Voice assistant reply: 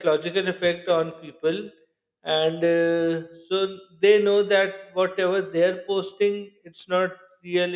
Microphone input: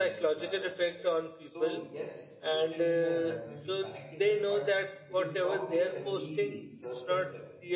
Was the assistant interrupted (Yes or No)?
Yes